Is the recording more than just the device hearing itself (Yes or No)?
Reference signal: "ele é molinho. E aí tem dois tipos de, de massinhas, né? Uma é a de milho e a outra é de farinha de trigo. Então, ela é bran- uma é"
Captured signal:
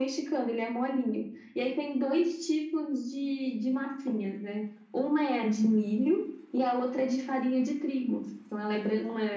No